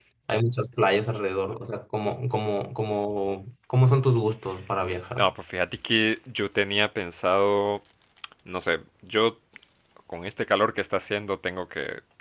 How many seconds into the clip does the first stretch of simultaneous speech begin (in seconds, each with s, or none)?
none